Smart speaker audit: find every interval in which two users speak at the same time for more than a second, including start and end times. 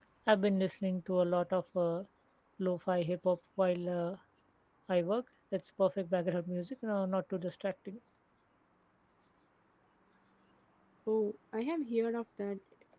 none

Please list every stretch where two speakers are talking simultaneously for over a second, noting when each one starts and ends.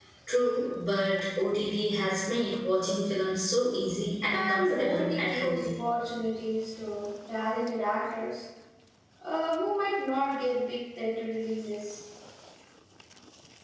4.3-5.7

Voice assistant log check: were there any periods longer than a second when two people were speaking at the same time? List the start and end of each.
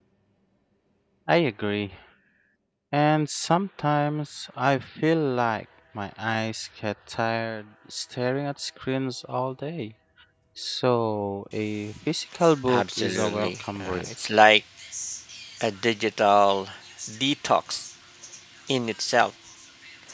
12.7-14.1

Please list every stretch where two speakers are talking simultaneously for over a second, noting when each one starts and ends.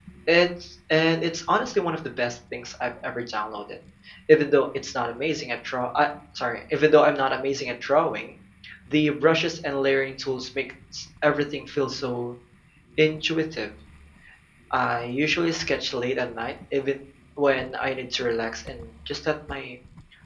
none

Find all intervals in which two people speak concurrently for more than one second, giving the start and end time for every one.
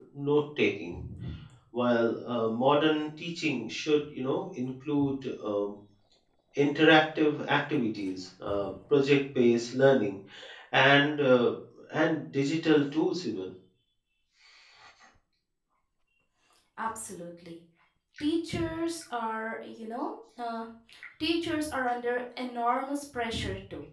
none

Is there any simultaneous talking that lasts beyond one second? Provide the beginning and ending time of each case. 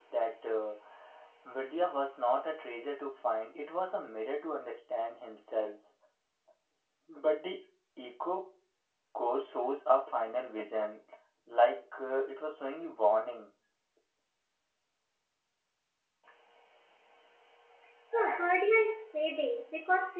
none

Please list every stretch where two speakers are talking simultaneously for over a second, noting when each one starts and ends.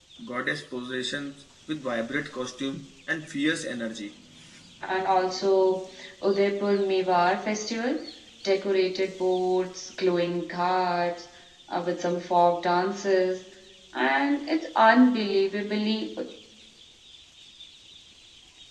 none

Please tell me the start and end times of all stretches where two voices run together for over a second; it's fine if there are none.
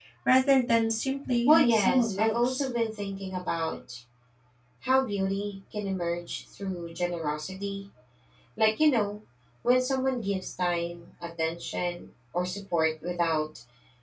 1.5-2.7

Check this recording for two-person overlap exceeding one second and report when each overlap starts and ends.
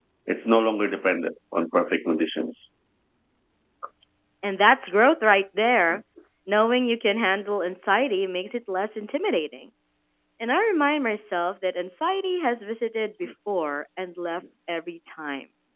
none

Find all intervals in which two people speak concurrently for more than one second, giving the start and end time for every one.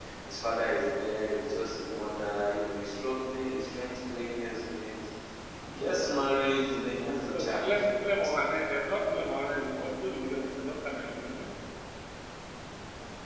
none

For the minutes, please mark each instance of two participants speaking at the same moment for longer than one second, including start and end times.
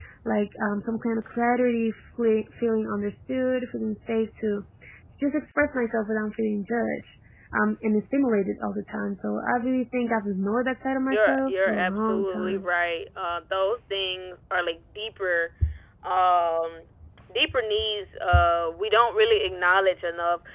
11.1-12.7

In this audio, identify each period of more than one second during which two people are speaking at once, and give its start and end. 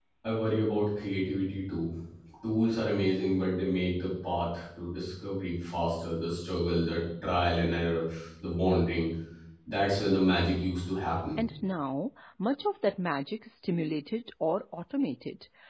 none

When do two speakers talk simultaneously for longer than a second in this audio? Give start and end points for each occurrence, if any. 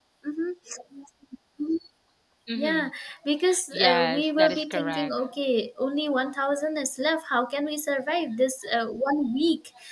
3.7-5.1

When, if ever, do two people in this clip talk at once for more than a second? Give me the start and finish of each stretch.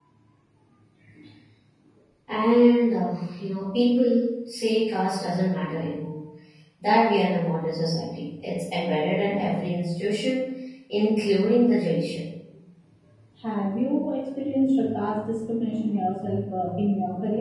none

